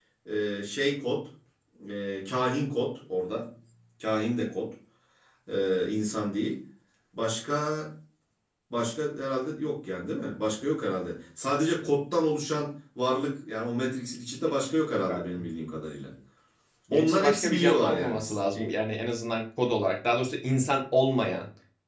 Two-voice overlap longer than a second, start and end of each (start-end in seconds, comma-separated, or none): 16.9-18.7